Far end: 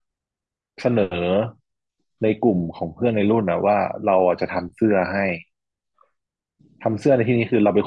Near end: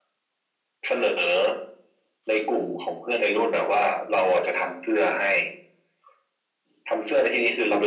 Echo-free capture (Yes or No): No